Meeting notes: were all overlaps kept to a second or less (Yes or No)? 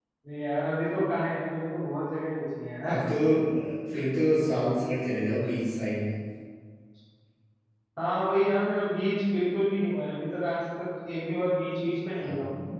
Yes